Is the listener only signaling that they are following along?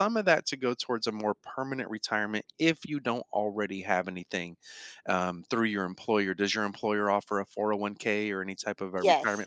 No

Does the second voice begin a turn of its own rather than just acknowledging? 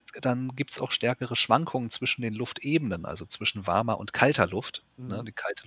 Yes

